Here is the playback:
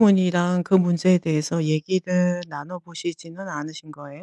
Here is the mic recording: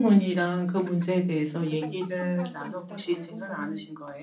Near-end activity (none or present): present